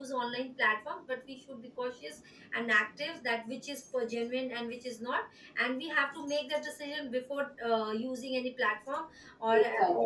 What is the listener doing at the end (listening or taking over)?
listening